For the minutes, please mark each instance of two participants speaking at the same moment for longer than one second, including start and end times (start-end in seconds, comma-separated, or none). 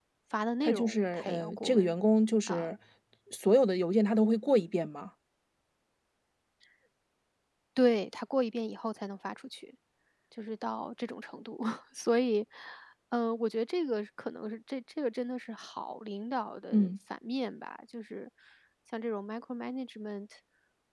0.6-1.9